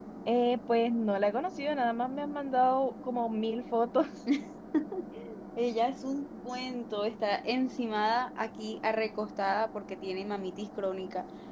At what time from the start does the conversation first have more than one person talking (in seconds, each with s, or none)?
none